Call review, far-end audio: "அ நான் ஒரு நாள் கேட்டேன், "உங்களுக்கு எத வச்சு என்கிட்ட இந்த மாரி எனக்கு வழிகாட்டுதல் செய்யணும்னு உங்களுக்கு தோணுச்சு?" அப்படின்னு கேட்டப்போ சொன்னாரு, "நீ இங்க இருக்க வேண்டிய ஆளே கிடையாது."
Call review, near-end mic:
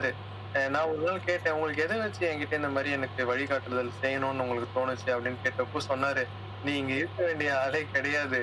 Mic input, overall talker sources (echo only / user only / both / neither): echo only